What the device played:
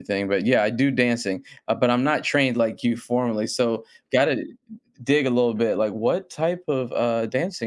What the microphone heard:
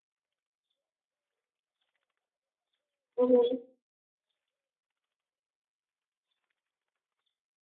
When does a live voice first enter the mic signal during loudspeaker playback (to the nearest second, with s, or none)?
3 s